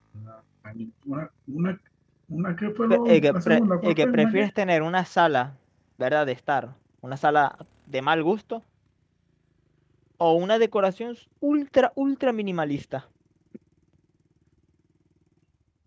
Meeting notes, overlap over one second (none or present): present